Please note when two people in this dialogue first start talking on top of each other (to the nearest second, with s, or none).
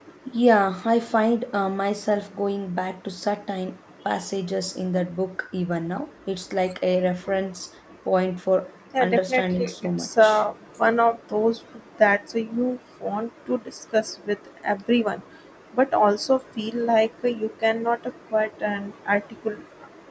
9 s